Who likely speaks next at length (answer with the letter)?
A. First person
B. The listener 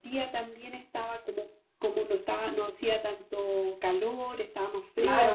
B